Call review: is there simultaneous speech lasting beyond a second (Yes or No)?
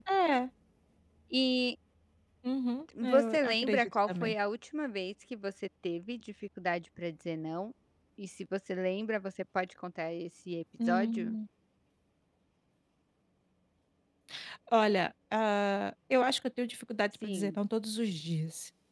Yes